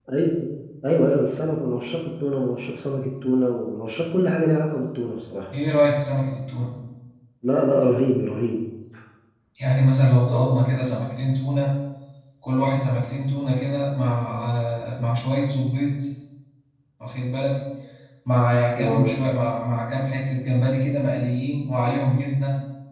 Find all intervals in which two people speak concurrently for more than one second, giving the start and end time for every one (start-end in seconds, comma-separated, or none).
none